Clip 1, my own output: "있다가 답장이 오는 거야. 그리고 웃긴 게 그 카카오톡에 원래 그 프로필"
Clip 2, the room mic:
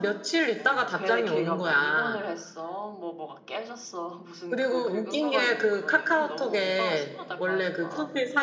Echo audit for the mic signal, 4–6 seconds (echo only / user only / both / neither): both